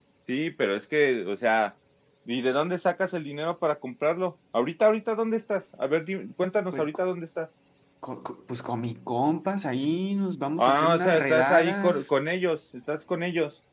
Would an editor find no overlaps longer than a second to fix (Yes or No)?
No